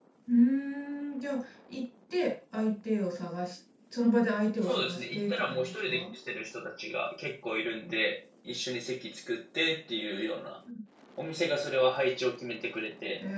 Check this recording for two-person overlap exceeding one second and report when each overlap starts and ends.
4.6-6.0

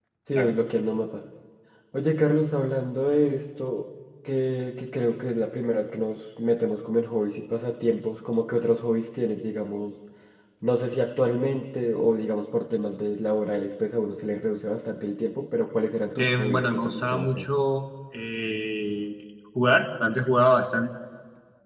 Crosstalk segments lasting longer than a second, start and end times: 16.2-17.5

